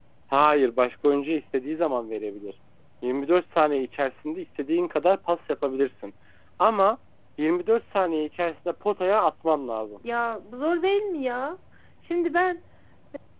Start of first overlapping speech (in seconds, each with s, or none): none